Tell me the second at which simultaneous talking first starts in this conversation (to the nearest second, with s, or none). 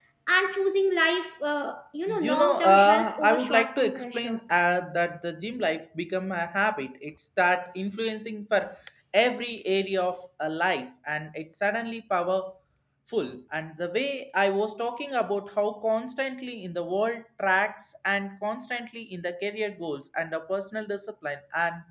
2 s